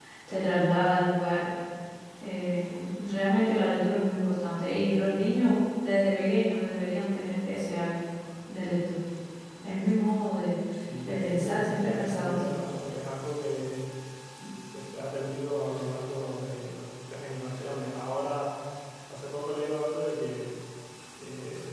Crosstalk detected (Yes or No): Yes